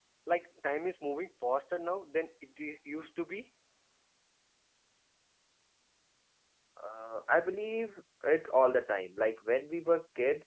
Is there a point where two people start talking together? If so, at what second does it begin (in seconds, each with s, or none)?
none